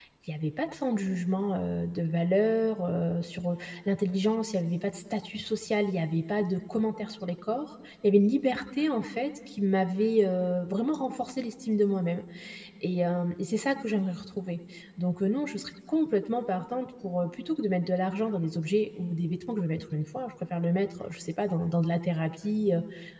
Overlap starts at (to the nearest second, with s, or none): none